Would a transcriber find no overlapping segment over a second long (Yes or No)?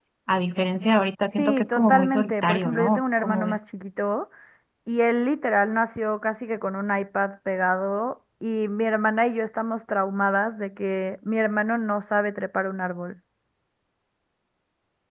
No